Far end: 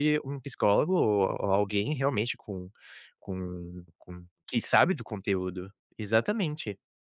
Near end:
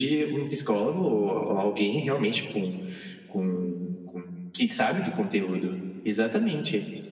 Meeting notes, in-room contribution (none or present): none